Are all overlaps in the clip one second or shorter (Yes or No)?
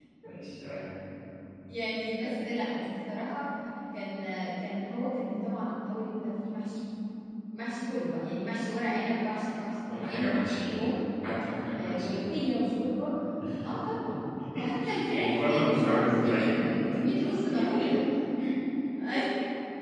No